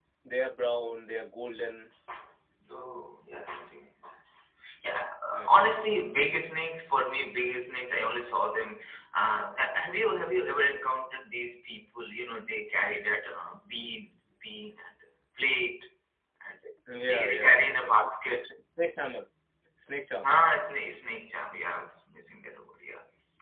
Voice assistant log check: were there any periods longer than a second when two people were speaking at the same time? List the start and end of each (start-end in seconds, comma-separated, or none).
17.1-18.4